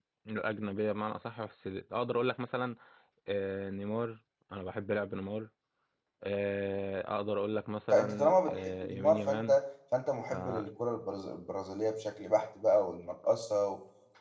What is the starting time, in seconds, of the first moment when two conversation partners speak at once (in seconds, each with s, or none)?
7.9 s